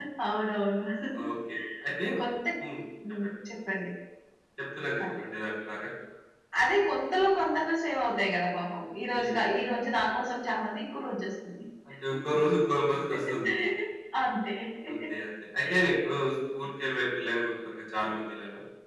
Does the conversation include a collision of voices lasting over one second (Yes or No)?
No